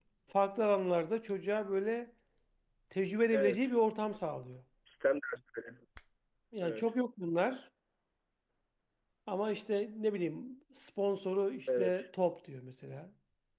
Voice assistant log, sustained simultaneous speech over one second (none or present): none